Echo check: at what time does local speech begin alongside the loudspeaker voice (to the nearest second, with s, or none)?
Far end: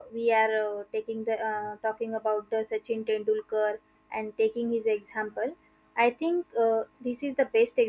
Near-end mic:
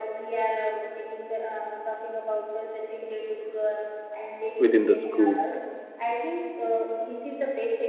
5 s